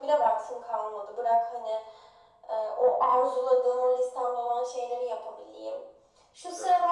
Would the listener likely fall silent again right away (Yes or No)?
Yes